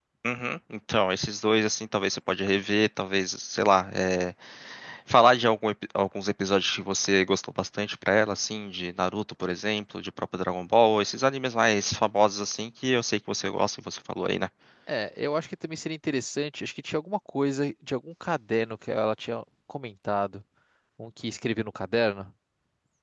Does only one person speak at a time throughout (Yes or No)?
Yes